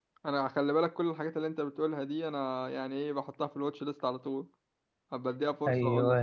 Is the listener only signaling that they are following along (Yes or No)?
No